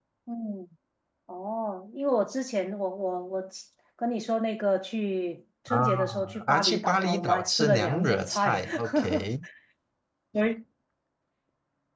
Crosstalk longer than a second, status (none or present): present